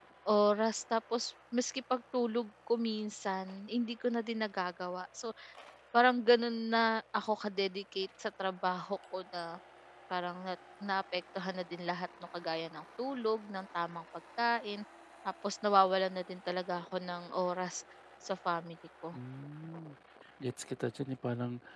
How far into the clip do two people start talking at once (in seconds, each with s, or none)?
none